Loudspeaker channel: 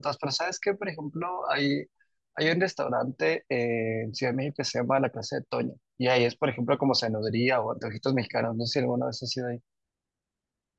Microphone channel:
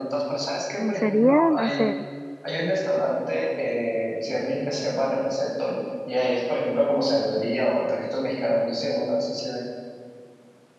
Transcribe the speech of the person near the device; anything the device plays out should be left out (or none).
Ujú. Sería, no sé.